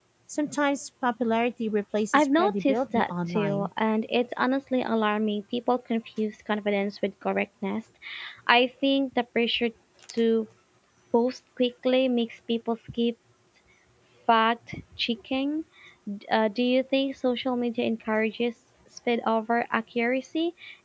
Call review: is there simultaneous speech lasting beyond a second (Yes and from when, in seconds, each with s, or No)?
Yes, from 2.1 s